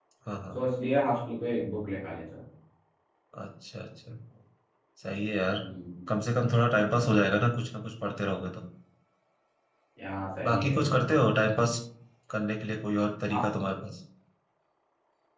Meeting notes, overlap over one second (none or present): none